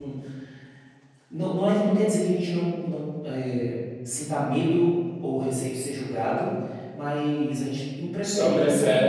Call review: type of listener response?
listening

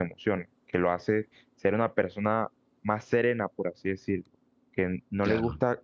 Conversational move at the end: listening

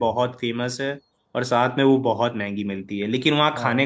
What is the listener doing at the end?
listening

